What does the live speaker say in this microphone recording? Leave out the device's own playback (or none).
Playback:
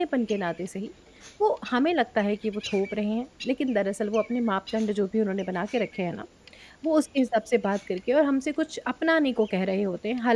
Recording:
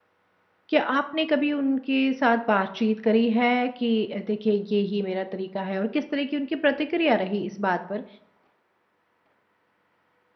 क्या आपने कभी उनके साथ बातचीत करी है कि अ, देखिए ये ही मेरा तरीका है और किस तरह की उनकी प्रतिक्रिया रही इस बात पर,